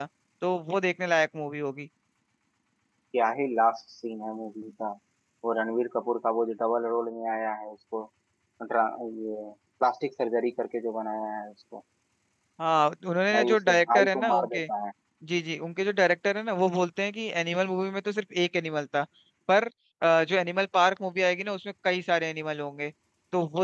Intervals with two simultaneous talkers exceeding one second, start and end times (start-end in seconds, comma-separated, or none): 13.3-14.6